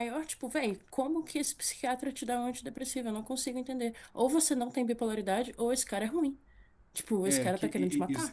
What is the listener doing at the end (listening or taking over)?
taking over